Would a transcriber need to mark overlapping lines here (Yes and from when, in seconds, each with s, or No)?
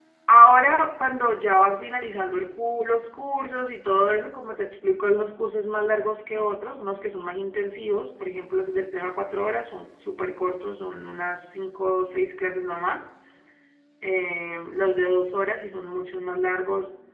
No